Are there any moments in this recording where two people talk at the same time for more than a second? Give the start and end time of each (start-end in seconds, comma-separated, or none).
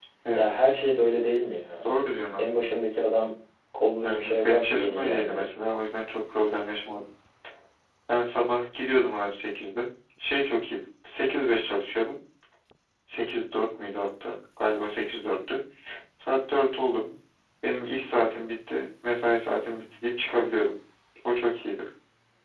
4.0-5.5